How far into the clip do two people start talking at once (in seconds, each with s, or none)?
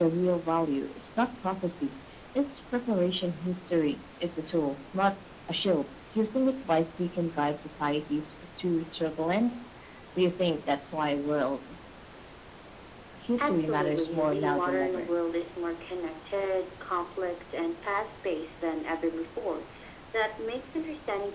13.4 s